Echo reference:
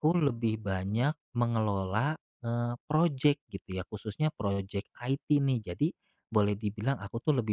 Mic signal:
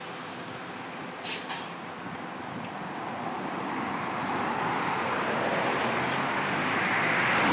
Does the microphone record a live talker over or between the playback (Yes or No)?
No